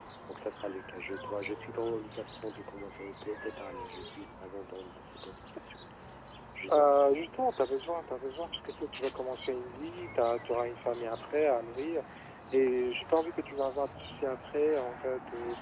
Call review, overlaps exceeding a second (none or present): none